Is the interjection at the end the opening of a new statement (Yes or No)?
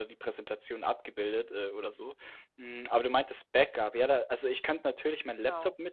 No